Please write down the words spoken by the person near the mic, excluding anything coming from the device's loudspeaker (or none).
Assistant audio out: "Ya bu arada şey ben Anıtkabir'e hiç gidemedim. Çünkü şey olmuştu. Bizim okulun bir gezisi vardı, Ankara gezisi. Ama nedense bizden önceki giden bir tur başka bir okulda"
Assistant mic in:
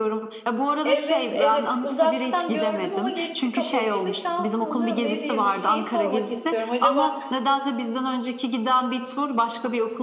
Evet, evet. Uzaktan gördüm ama girişi kapalıydı. Şanssızlığım ne diyeyim? Şeyi sormak istiyorum. Acaba